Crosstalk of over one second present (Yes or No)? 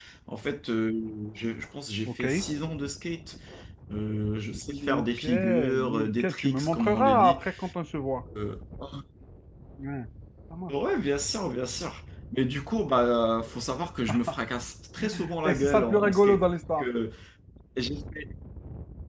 Yes